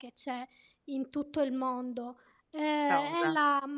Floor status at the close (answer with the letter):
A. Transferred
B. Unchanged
B